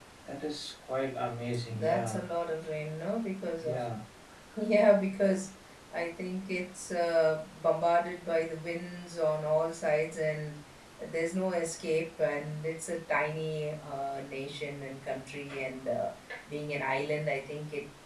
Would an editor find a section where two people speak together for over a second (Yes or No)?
No